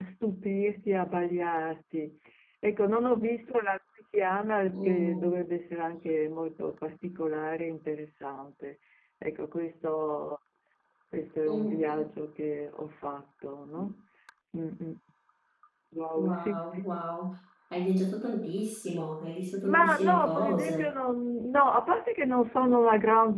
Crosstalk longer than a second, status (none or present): present